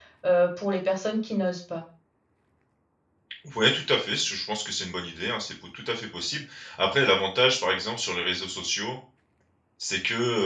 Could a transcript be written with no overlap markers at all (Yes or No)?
Yes